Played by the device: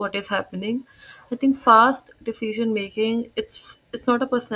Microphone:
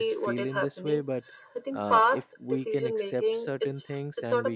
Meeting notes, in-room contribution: present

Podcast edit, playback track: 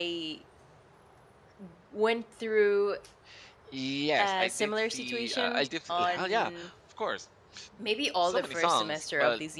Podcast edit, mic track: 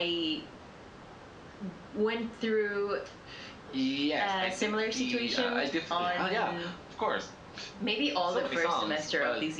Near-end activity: none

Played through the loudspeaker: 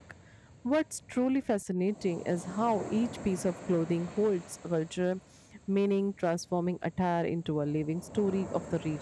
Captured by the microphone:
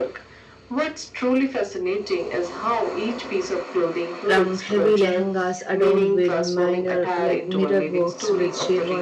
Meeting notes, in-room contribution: present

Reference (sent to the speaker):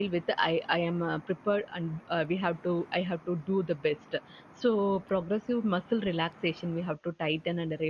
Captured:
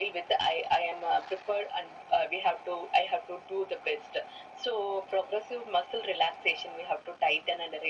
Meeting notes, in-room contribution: none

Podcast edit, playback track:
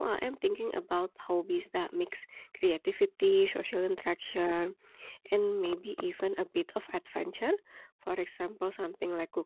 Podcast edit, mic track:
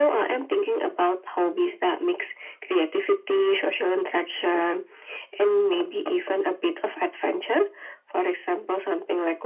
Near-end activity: none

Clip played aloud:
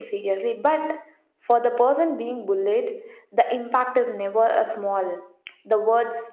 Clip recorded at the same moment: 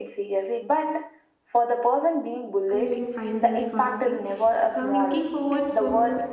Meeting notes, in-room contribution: present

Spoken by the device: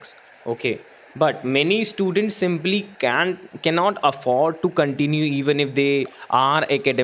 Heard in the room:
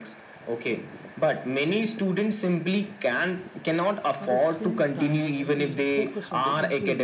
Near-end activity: present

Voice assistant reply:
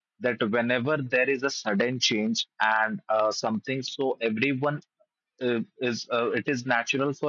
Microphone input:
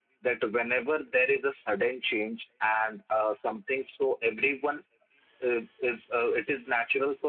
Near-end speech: none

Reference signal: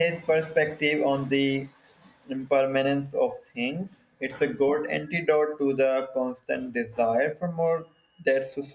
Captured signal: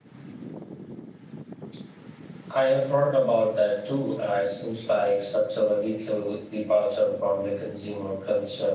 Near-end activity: present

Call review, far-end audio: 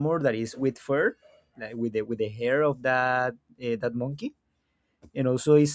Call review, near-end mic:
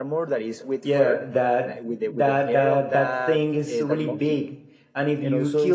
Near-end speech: present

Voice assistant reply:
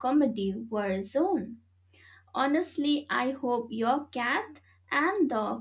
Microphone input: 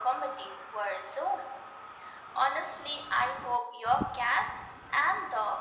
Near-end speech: none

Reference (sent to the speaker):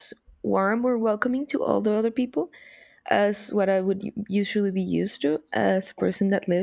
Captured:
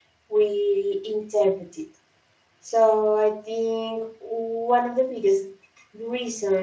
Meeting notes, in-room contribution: present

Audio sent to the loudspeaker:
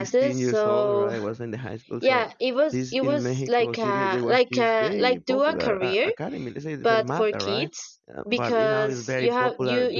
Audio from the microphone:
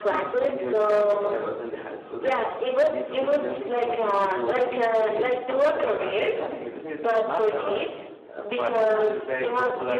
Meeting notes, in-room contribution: none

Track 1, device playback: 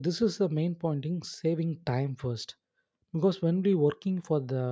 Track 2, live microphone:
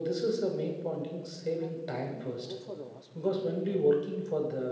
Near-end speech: present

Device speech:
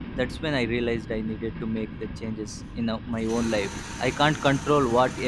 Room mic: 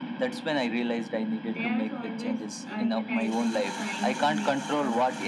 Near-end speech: present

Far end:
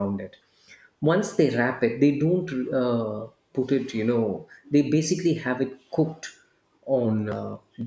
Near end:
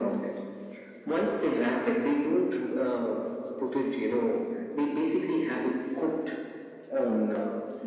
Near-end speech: none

